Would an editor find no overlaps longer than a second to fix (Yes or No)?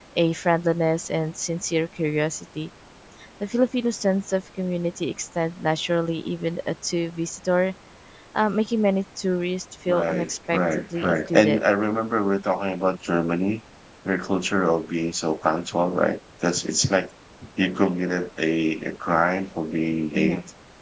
No